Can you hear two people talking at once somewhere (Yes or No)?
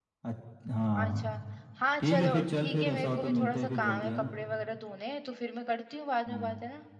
Yes